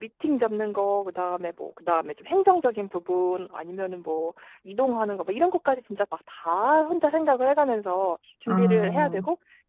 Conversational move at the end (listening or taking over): listening